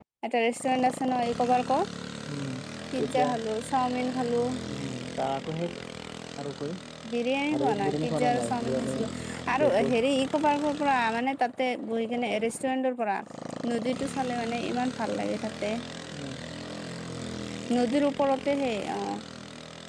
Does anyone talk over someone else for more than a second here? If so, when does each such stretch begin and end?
7.6-8.9

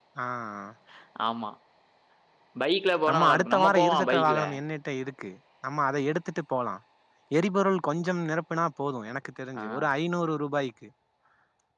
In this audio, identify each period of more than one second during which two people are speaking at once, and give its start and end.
3.1-4.4

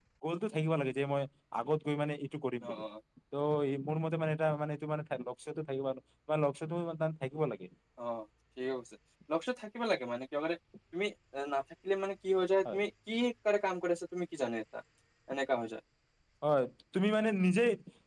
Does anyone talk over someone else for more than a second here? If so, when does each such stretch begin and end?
none

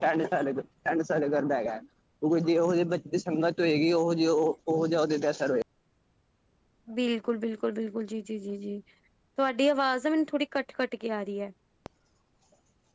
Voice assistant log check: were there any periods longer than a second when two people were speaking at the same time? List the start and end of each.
none

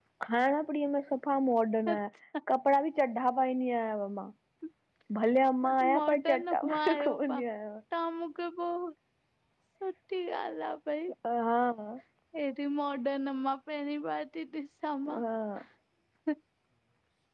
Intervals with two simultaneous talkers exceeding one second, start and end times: 5.9-7.4

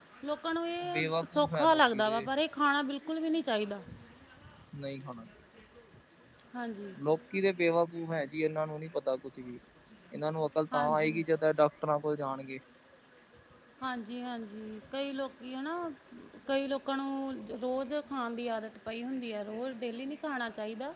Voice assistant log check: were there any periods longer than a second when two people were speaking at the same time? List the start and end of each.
0.9-2.2

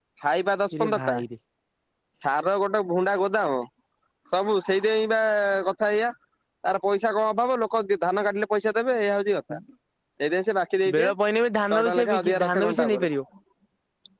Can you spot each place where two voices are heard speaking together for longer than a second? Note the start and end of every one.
11.7-13.1

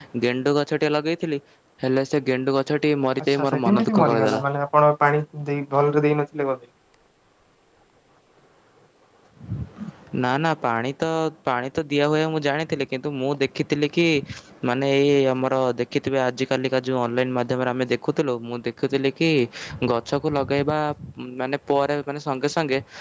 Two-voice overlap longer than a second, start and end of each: 3.2-4.4

